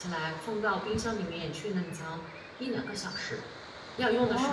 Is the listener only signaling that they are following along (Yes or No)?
No